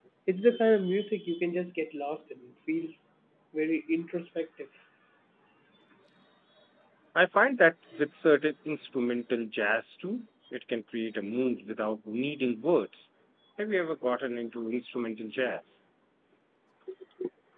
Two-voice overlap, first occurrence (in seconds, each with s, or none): none